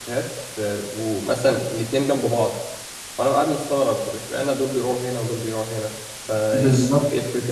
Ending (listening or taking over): taking over